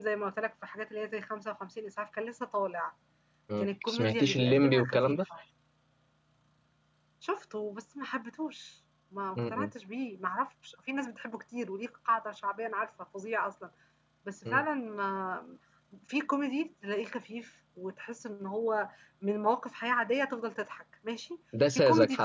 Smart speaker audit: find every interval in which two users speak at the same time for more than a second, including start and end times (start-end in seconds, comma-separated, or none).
3.6-5.2